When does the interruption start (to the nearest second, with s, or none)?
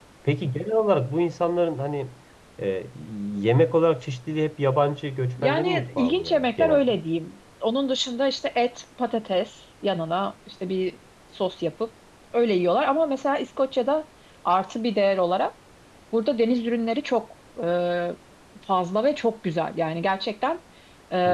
5 s